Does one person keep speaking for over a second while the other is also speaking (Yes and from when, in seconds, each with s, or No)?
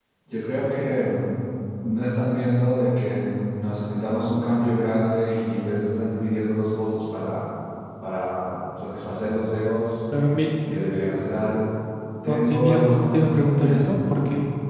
Yes, from 12.3 s